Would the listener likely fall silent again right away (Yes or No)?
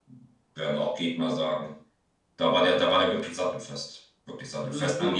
Yes